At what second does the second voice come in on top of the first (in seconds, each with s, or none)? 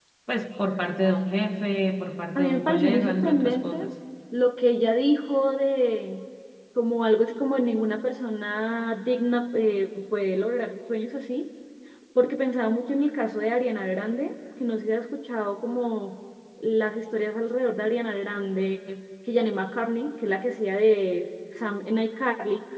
2.4 s